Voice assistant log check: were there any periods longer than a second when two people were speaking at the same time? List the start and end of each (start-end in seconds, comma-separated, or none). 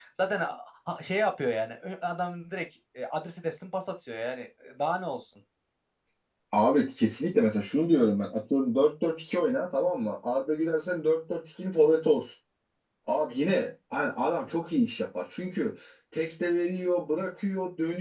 none